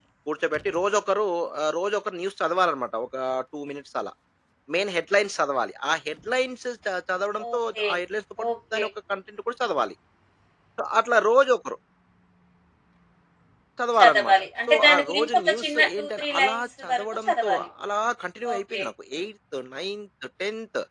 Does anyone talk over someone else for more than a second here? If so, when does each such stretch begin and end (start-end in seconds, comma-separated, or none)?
14.0-17.7